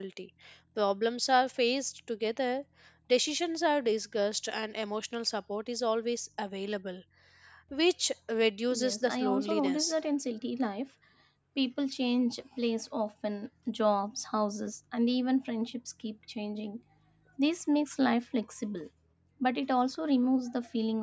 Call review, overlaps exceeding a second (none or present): present